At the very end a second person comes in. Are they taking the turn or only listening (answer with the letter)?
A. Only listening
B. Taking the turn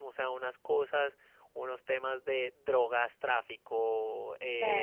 A